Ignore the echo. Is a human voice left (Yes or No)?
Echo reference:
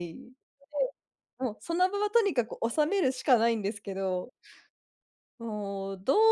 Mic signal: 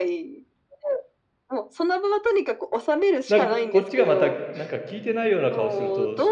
Yes